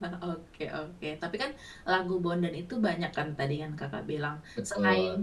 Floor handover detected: No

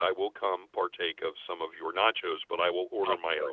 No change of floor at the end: No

